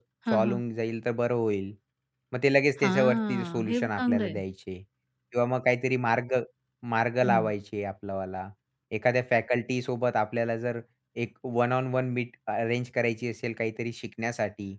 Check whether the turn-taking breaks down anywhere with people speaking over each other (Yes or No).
Yes